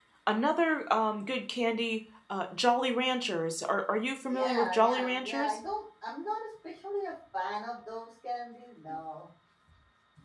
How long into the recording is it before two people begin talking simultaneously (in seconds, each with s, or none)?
4.3 s